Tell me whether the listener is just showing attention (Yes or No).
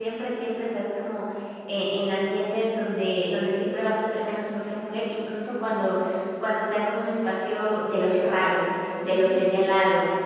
Yes